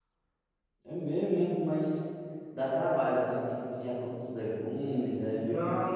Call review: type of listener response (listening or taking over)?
taking over